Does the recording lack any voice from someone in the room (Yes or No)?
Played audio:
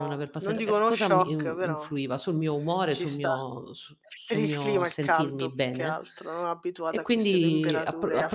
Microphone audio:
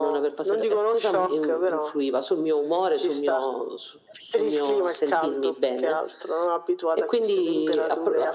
Yes